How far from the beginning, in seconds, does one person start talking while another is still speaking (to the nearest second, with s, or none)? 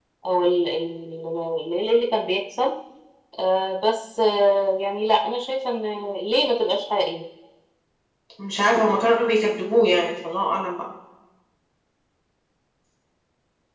none